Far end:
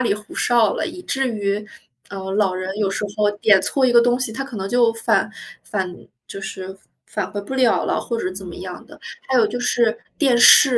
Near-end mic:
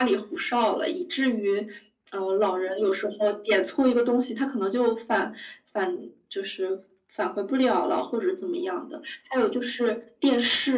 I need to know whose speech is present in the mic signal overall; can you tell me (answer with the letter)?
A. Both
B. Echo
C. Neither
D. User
B